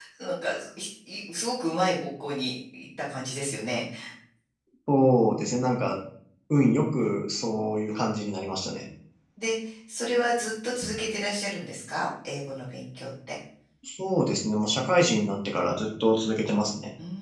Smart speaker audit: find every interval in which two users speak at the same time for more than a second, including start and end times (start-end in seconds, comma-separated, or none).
none